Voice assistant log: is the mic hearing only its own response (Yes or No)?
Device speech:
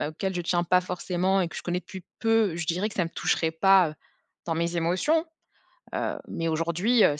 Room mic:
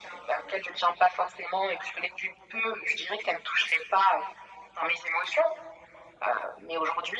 Yes